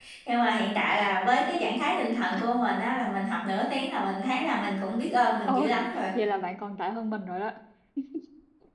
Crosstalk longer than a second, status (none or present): none